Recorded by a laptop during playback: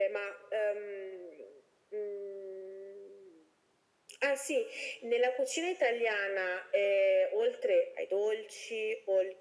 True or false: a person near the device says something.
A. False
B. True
A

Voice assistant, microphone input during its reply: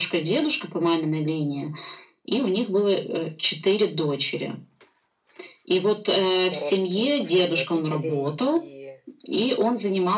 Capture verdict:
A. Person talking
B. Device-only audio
A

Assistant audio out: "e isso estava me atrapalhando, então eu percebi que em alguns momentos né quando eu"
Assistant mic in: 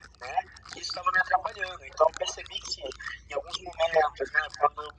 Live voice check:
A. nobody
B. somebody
A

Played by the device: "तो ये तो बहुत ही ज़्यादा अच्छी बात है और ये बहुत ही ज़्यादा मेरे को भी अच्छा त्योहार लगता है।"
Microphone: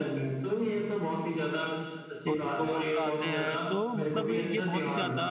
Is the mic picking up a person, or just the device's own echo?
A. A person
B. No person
A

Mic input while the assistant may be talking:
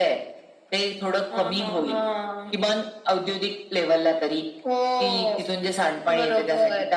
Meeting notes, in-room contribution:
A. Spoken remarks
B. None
B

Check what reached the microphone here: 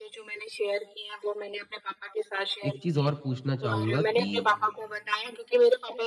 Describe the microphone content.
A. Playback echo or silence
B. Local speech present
B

